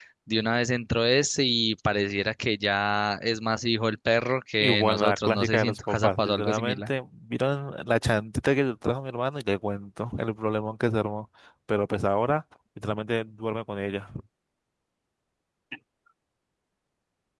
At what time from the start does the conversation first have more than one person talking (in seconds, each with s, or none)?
4.6 s